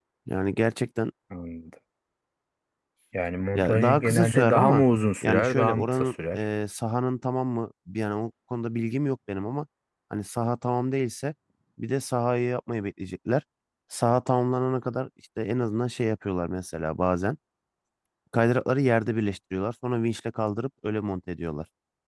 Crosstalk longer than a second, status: present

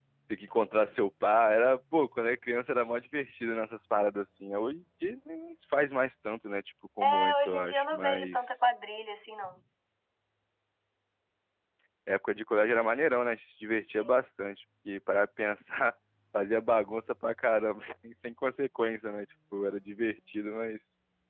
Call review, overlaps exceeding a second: present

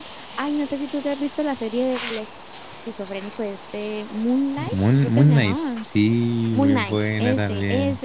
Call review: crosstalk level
present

